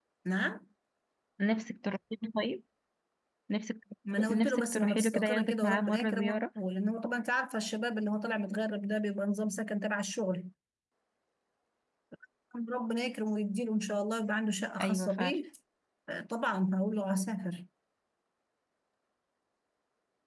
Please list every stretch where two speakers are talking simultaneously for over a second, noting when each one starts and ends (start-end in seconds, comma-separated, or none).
4.3-6.5